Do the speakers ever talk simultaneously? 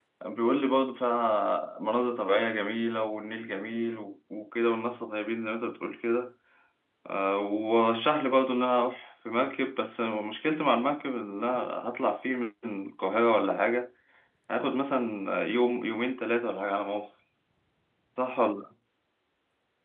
No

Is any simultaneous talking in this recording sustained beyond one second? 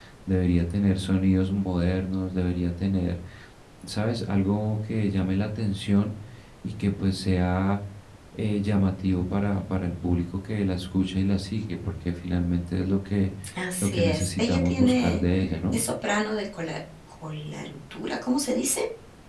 Yes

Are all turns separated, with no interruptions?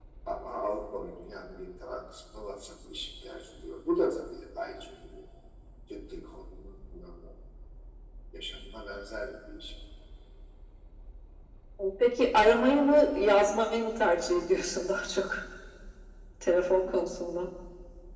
Yes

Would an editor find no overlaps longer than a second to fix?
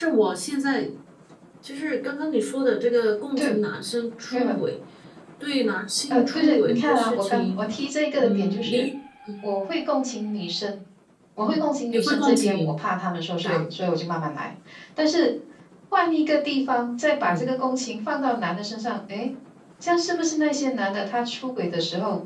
No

